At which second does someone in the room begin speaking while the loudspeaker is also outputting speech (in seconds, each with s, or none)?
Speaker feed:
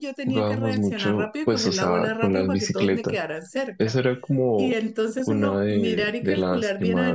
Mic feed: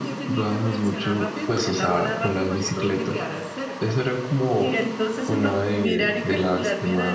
none